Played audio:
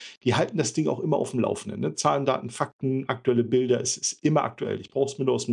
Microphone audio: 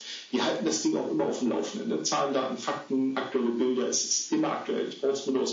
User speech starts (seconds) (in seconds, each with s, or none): none